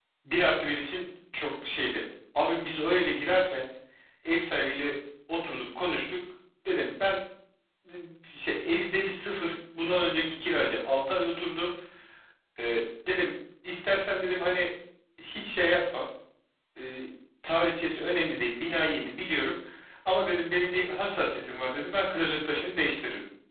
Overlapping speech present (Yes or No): No